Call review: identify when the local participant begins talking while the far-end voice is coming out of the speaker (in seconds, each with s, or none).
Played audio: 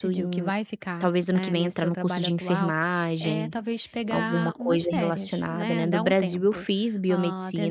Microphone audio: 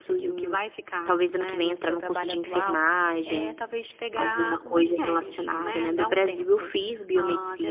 none